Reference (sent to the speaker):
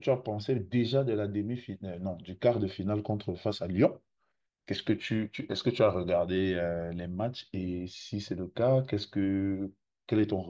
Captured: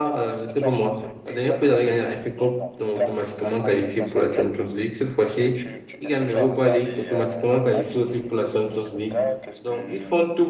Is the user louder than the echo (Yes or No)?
Yes